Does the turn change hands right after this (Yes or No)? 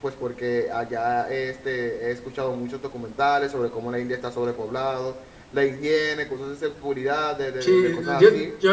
Yes